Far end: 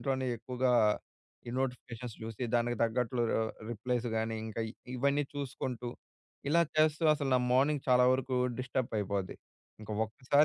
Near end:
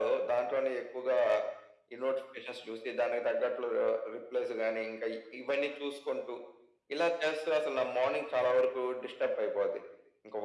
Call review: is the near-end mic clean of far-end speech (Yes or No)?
No